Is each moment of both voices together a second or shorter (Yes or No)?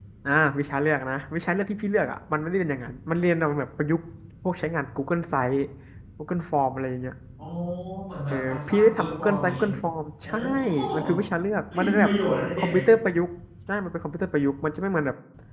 No